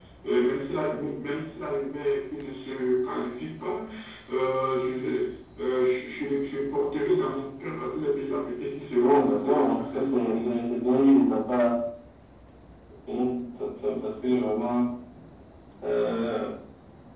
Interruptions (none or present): present